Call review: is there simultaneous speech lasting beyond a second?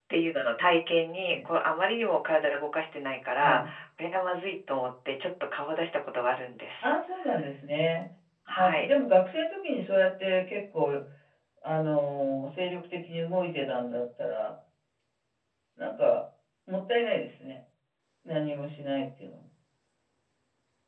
No

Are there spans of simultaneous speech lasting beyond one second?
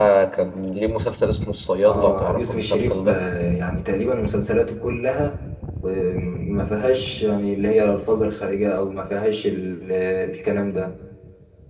Yes, from 1.8 s

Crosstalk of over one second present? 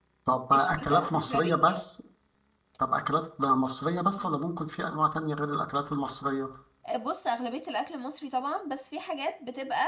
Yes, from 0.5 s

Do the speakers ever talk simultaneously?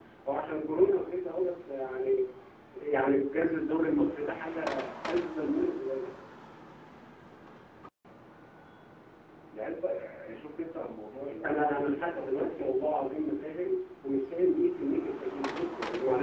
Yes, from 11.4 s

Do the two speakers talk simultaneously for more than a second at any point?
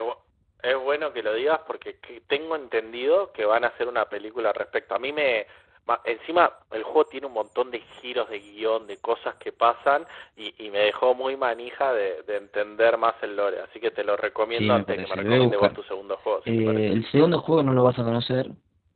Yes, from 14.5 s

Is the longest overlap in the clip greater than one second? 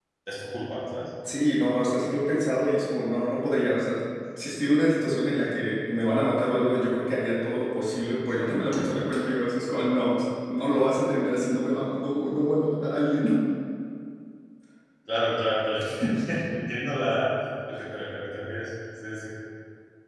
No

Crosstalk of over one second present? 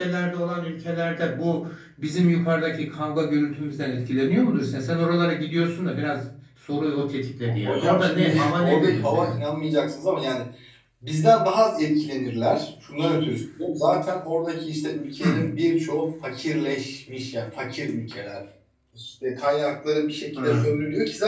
Yes, from 7.6 s

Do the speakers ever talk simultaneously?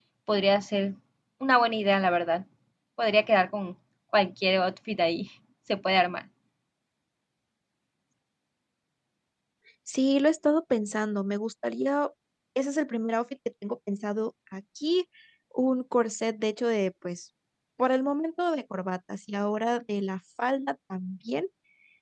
No

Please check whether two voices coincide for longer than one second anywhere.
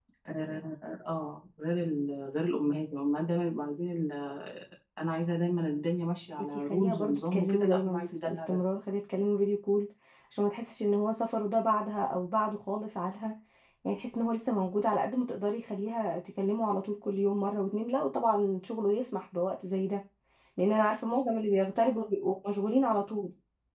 Yes, from 6.3 s

